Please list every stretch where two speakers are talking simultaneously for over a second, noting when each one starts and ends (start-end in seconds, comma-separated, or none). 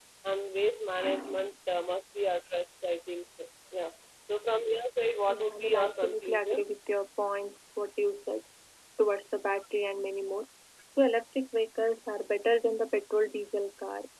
5.3-6.6